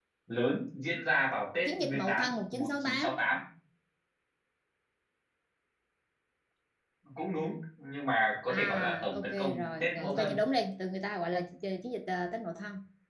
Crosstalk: present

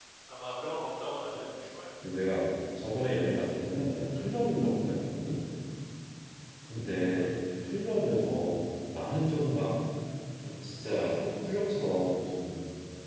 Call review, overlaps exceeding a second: none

